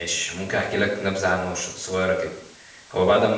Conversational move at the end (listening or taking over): listening